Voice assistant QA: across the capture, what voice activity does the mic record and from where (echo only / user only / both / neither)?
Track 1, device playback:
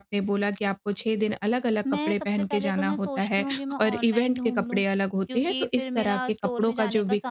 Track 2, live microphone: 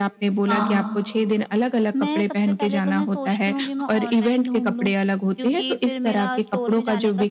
both